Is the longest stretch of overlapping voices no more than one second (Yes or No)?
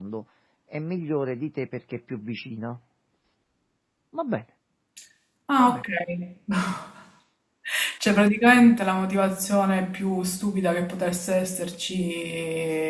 Yes